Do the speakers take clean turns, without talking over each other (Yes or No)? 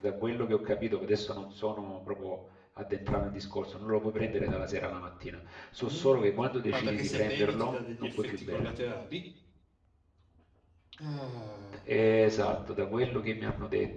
No